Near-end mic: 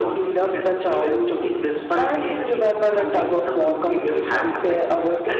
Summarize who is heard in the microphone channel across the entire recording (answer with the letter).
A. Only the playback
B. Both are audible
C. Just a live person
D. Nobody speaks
A